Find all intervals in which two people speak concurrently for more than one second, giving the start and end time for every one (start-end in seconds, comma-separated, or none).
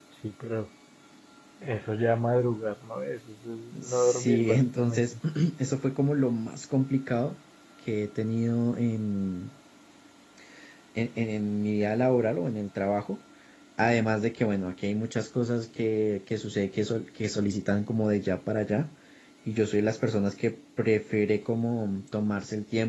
3.8-5.1